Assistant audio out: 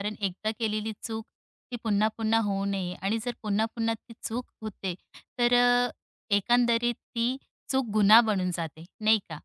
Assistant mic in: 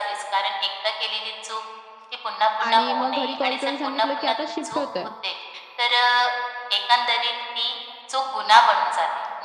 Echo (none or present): present